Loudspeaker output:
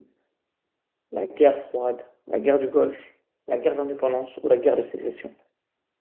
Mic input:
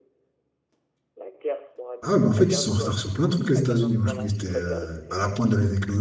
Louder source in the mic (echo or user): user